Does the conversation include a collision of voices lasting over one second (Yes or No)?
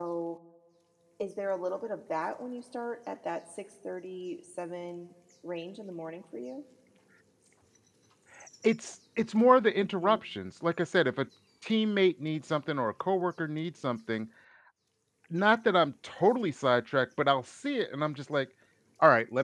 No